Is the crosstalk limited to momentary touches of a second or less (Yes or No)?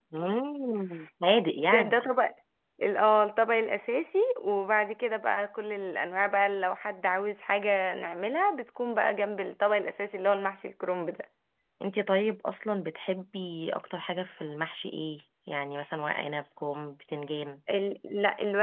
Yes